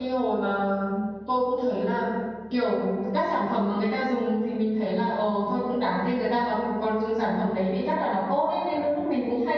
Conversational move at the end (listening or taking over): listening